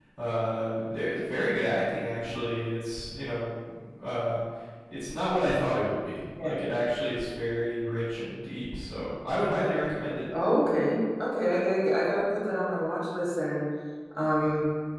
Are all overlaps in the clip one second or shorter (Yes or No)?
Yes